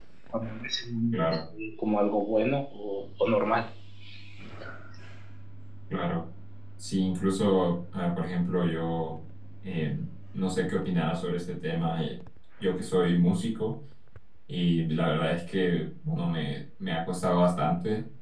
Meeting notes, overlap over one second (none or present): none